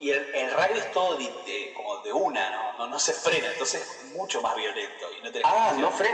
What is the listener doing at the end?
taking over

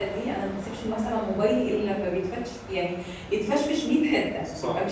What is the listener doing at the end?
taking over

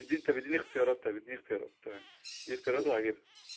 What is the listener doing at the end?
taking over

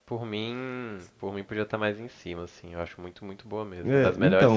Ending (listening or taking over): taking over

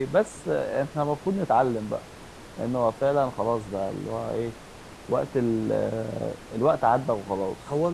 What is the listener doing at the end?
taking over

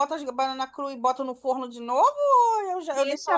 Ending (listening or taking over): taking over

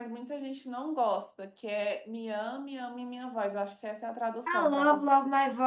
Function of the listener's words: taking over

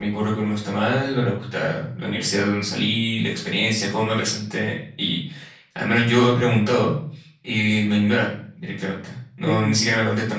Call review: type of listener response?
listening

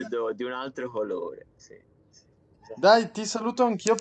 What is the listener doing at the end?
taking over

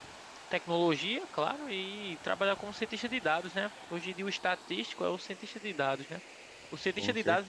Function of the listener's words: listening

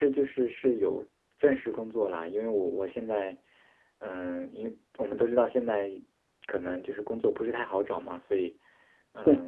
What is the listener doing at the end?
listening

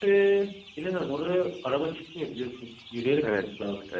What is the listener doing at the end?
taking over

